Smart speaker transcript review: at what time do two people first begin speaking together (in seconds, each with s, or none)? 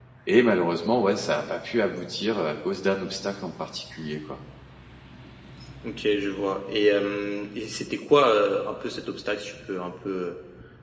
none